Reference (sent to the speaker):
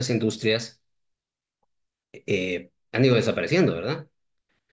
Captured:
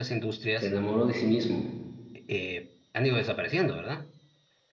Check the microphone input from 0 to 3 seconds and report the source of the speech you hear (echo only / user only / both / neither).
both